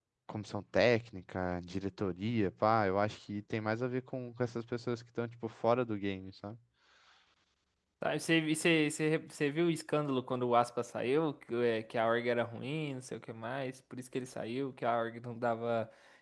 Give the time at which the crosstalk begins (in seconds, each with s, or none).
none